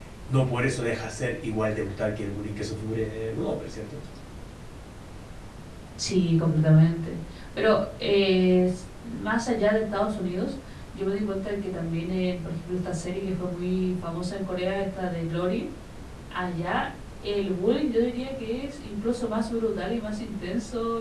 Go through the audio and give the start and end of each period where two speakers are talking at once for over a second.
none

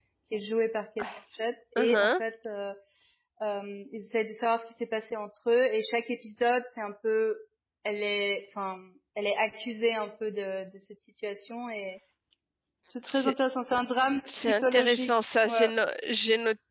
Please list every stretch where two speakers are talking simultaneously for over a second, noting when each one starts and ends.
14.3-15.6

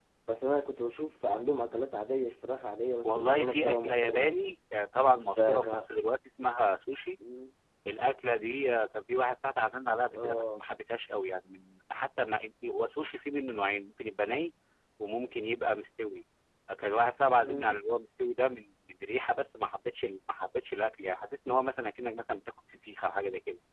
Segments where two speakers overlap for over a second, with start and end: 3.0-4.3

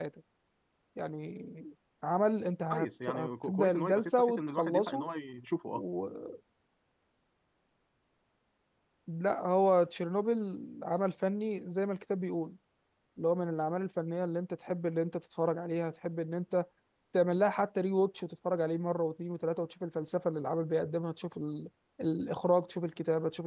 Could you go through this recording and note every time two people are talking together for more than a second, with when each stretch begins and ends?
2.7-5.0

